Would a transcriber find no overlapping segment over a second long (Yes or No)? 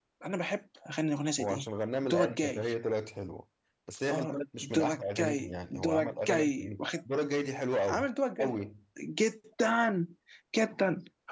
No